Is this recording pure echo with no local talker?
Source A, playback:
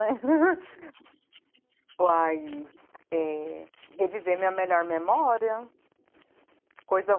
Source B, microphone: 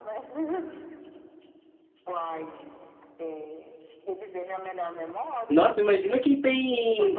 No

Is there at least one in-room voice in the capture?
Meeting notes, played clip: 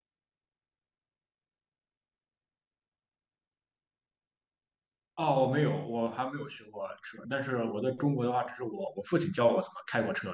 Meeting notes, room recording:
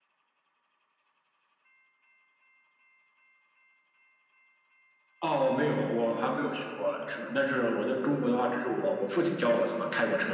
No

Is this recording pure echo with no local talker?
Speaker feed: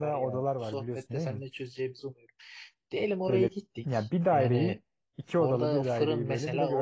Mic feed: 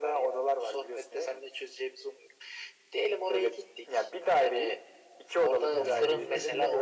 No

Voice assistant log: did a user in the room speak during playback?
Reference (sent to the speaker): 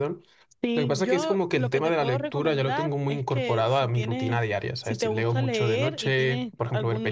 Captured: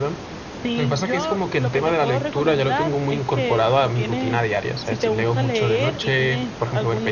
No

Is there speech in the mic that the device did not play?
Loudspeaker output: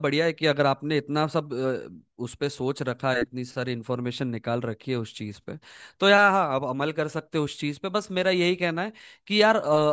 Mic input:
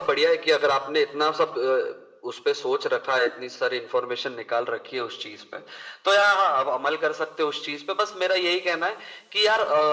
No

